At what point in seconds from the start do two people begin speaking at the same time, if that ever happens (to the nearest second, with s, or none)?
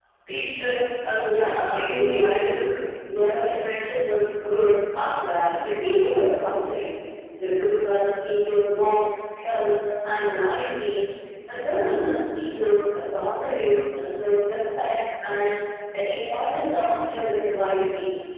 1 s